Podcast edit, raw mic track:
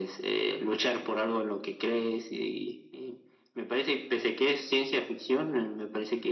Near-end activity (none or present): none